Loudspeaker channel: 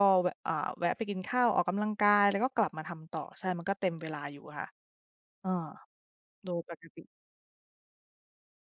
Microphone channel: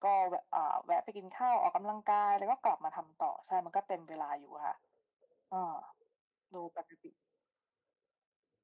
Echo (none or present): present